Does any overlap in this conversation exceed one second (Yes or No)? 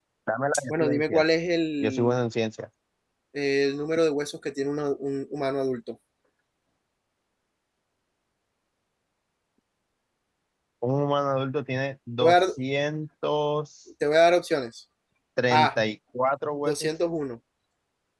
No